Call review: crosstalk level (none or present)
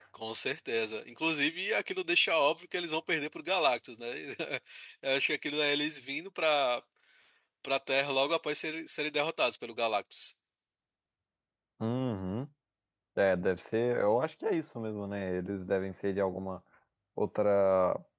none